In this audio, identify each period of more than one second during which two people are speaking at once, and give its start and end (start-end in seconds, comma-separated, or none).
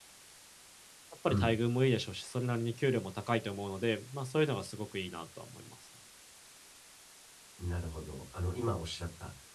none